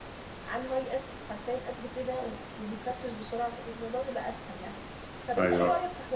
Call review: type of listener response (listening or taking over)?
listening